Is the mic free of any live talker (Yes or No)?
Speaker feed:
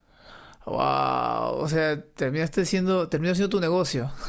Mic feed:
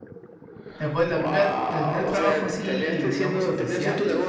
No